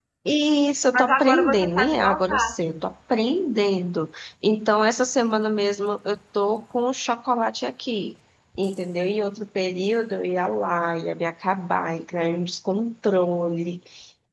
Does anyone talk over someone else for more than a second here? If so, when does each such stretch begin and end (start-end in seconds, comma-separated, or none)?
0.9-2.5